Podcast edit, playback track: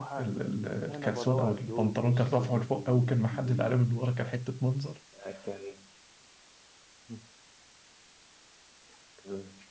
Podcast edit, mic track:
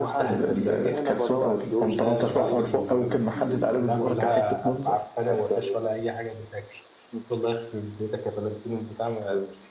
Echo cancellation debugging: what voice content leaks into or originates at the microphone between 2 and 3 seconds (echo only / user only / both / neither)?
both